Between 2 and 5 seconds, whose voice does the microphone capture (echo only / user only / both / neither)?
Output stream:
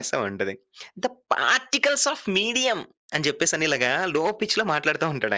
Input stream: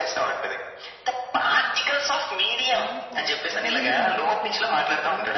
both